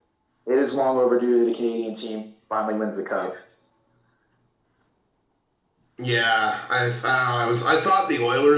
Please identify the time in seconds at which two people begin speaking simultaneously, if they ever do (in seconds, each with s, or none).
none